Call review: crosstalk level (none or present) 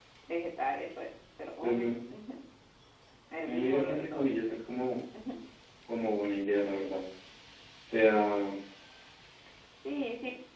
present